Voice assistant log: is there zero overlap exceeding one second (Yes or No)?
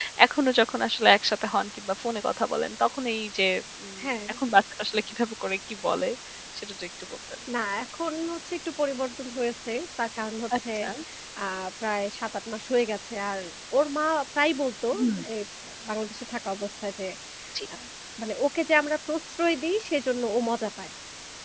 Yes